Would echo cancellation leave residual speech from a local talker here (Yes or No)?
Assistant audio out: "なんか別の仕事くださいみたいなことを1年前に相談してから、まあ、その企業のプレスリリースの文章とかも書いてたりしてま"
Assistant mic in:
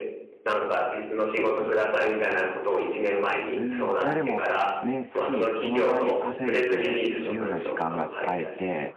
Yes